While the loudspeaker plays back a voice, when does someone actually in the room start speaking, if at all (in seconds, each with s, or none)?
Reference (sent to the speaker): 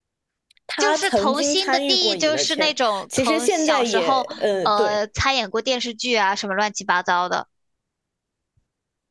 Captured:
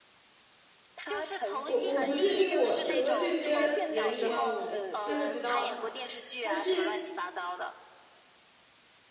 1.6 s